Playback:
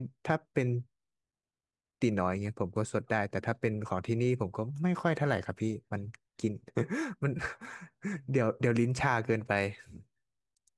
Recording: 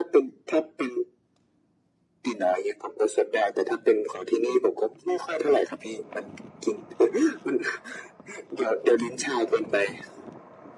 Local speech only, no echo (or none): none